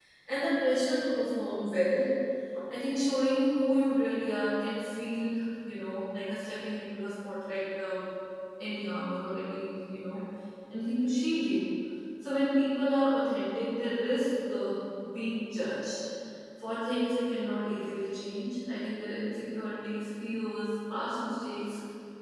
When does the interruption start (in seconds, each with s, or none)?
none